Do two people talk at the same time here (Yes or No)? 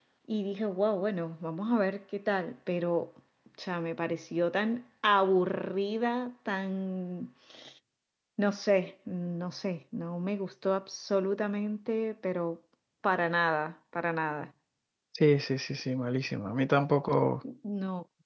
No